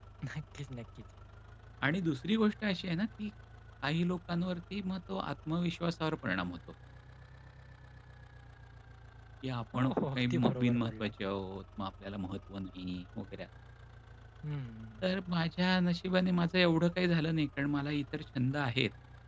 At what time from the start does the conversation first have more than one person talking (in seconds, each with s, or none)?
9.8 s